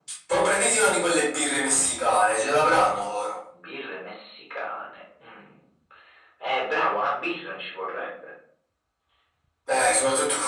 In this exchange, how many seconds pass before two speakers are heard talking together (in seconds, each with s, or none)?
none